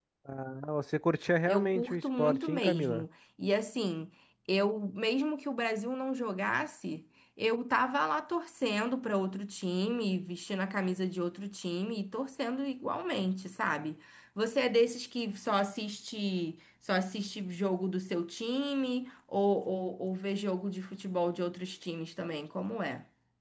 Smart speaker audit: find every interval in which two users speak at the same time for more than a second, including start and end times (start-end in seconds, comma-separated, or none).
1.5-3.0